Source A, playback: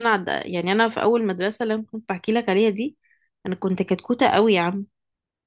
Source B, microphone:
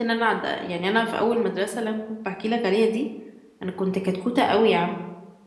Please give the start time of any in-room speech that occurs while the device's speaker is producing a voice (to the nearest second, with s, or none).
none